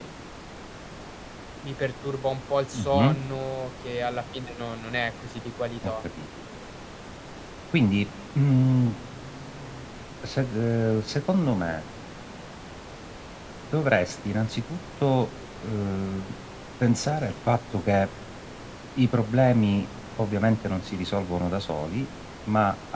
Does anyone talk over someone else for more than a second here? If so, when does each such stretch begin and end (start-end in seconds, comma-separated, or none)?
none